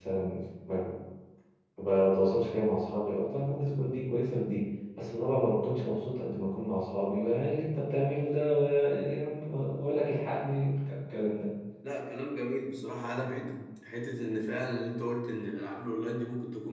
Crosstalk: none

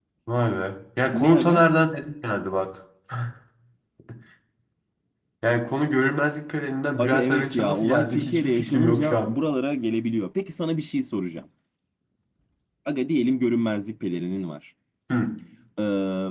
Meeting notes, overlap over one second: present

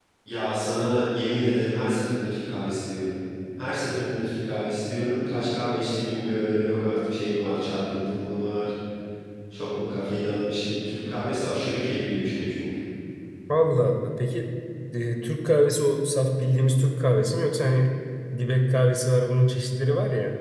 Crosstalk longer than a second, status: none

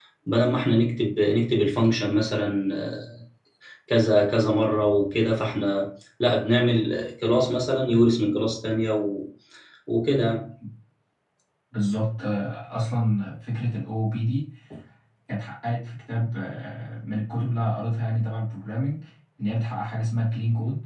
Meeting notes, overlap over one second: none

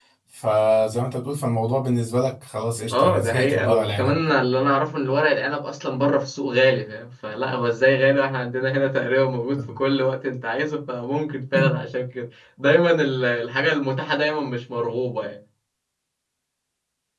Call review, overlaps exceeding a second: present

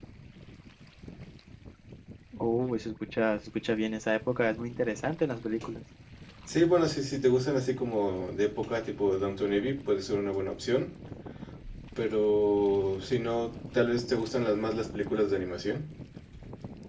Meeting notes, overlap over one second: none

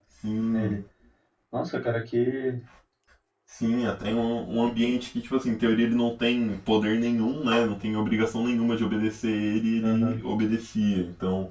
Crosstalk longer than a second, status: none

